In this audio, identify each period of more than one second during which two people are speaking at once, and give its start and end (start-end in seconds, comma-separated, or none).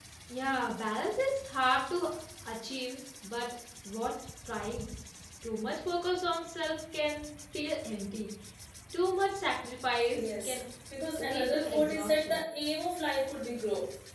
11.2-12.4